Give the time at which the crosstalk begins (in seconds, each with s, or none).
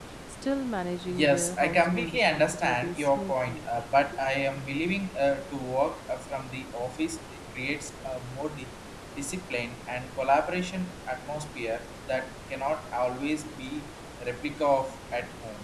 1.1 s